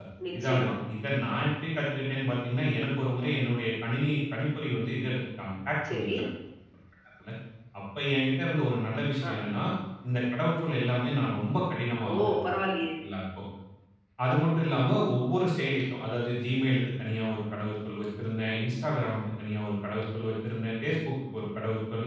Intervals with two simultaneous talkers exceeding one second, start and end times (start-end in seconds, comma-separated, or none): none